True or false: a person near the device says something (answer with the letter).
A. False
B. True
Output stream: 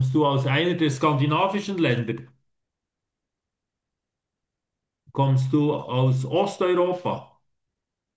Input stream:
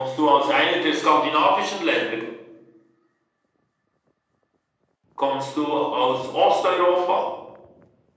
A